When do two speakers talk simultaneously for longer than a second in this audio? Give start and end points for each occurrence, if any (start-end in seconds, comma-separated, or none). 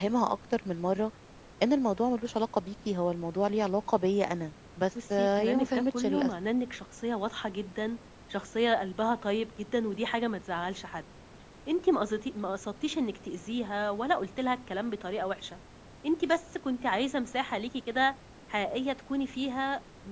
5.1-6.3